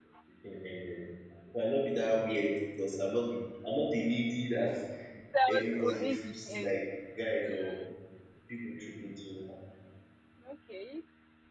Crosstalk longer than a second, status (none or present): present